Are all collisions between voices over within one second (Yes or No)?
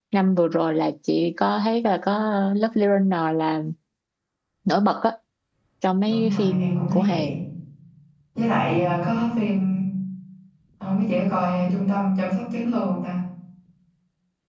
No